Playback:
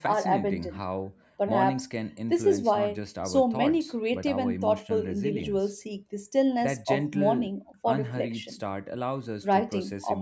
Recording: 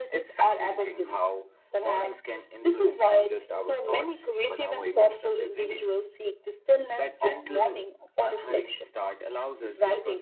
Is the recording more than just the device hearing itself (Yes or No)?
No